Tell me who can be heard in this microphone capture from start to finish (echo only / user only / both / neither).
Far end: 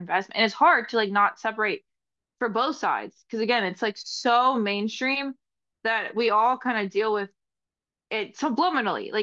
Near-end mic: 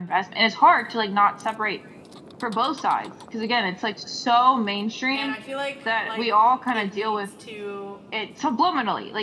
both